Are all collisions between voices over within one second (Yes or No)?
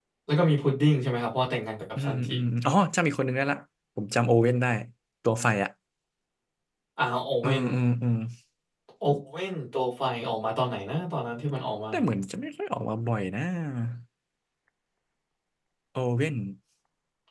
Yes